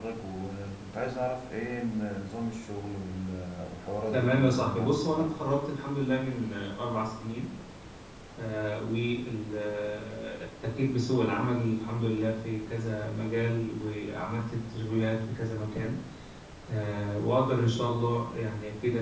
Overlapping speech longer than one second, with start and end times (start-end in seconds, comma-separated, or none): 4.1-5.4